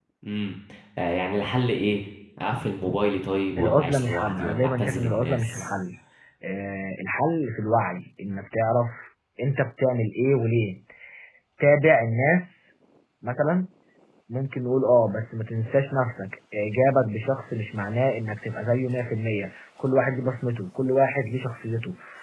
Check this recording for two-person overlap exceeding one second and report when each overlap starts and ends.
3.6-5.7

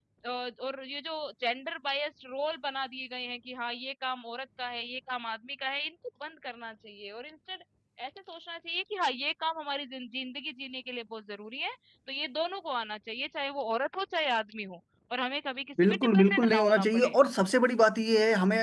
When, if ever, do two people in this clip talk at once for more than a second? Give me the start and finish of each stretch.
15.8-17.1

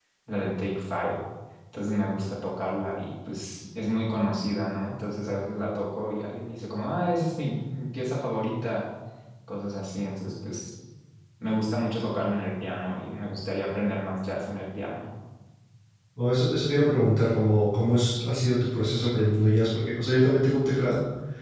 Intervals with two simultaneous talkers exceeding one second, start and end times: none

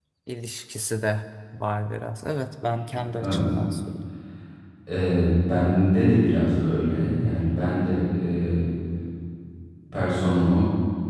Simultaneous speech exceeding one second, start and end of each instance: none

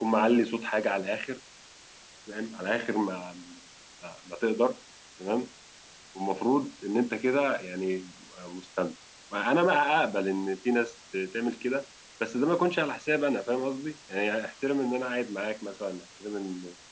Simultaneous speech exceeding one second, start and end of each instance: none

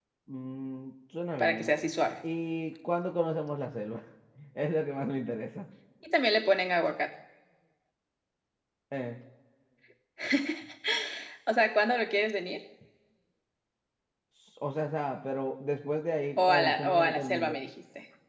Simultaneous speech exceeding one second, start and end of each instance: 16.4-17.6

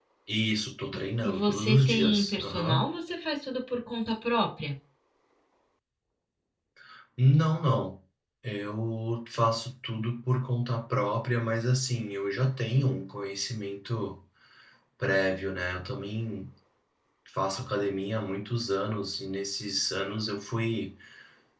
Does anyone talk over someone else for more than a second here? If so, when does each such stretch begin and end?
0.9-2.9

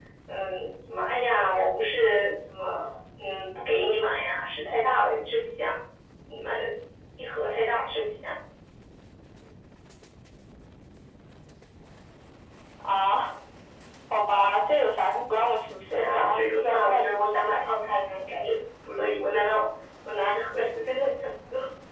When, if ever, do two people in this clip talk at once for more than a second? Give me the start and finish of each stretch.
15.9-17.7

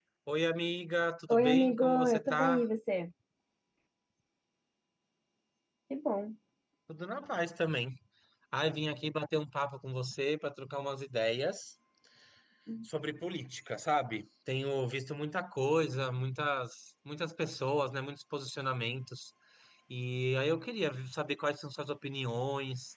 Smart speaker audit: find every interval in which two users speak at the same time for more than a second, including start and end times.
1.3-2.6

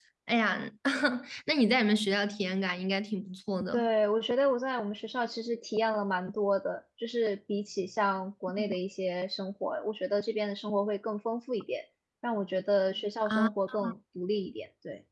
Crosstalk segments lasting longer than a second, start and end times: none

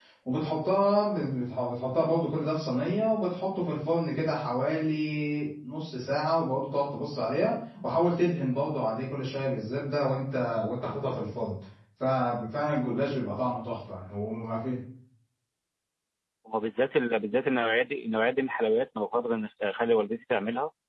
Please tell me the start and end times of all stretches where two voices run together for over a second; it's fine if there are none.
none

